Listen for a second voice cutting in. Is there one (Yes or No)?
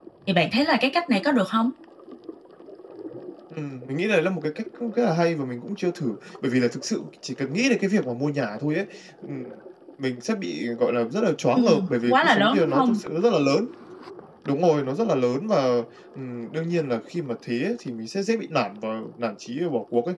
Yes